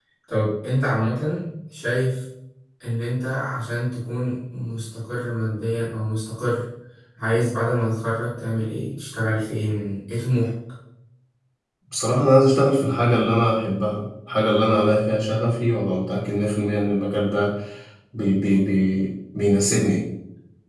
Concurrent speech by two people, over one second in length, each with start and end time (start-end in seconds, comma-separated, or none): none